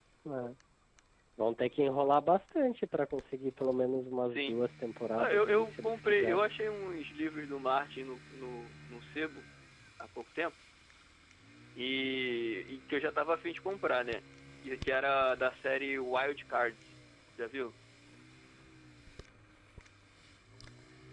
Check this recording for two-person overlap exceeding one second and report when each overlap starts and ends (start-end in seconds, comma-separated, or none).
5.2-6.5